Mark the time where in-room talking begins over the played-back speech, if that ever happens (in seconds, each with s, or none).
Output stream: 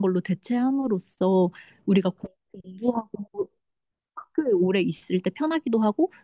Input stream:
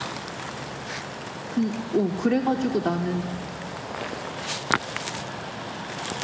1.5 s